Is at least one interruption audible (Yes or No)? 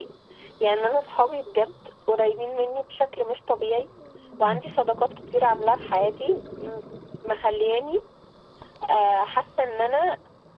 No